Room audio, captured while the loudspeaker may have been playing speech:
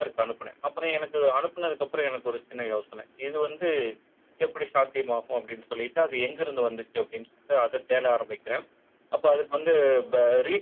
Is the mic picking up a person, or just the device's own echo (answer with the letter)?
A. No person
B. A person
A